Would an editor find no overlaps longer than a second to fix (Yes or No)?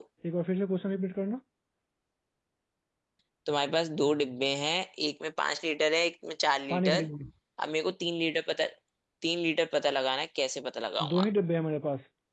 Yes